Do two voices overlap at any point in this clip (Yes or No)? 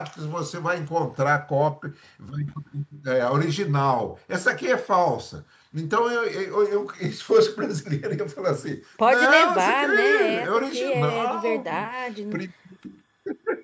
Yes